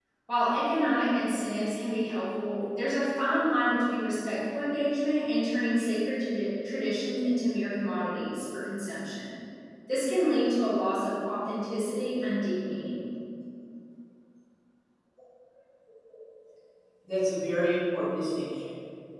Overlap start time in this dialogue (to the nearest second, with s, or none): none